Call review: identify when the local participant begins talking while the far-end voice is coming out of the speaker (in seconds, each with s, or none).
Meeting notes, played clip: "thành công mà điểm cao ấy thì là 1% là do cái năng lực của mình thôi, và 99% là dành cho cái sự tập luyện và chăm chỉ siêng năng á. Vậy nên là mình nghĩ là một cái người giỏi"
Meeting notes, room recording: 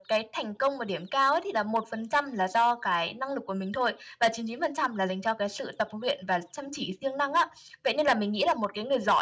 none